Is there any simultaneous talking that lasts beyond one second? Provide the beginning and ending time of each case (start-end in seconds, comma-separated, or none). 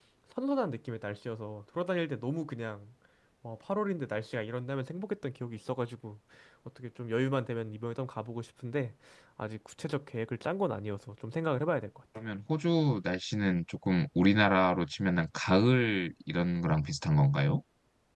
none